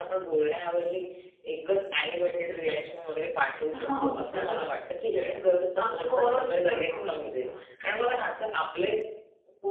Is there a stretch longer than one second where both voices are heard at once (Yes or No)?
Yes